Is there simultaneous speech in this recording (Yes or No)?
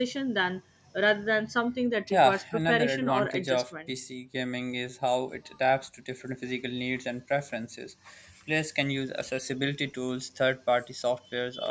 Yes